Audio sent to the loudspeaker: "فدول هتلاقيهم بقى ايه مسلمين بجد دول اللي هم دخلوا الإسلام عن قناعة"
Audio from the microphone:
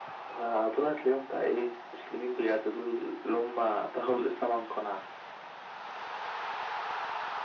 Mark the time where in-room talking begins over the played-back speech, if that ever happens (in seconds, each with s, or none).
none